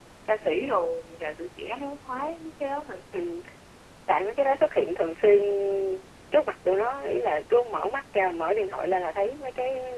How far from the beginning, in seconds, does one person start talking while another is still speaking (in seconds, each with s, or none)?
none